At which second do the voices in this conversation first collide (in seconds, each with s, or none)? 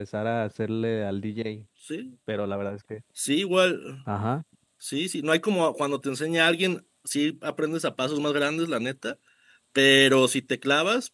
none